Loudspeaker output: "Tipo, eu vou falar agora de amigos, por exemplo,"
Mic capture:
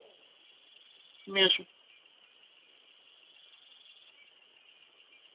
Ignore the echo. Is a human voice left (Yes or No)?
Yes